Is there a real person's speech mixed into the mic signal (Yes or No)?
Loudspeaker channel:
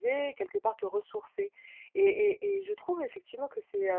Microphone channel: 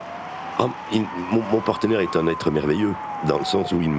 Yes